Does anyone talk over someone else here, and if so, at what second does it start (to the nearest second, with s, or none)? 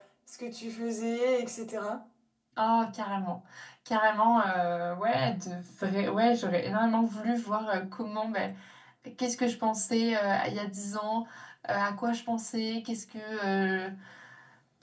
none